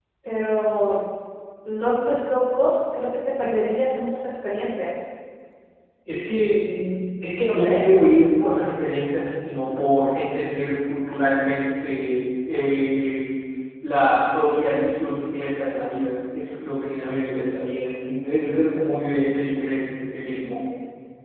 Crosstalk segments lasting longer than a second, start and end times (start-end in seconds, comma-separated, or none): none